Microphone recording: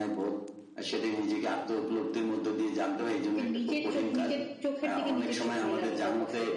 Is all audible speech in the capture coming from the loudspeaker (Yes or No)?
No